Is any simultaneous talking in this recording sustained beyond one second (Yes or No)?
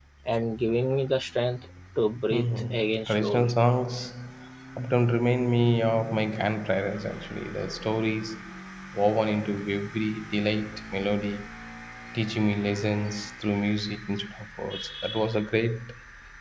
Yes